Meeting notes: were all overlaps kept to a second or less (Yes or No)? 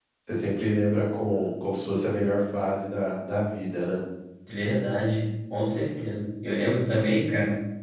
Yes